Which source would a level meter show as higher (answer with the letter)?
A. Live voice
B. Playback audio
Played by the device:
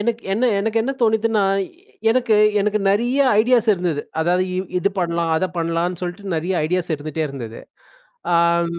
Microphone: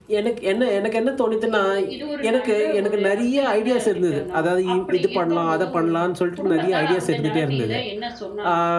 B